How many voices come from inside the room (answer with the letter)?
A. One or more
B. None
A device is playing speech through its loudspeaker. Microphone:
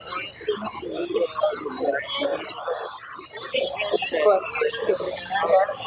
B